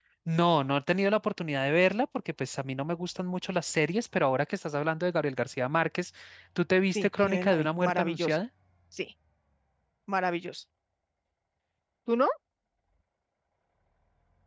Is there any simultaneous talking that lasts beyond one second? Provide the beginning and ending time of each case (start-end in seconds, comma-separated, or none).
7.0-8.4